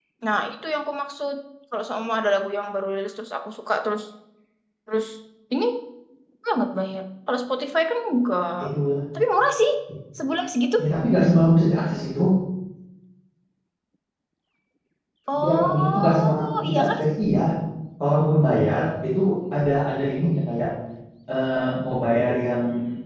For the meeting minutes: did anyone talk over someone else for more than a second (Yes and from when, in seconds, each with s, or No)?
Yes, from 15.4 s